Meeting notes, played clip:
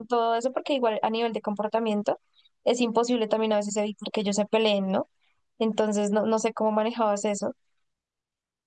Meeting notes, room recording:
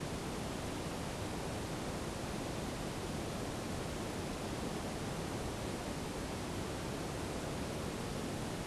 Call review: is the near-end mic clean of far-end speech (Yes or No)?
Yes